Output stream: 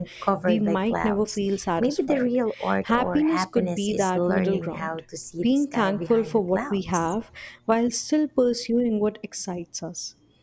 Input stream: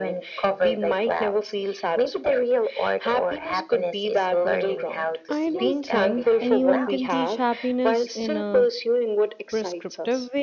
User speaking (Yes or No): Yes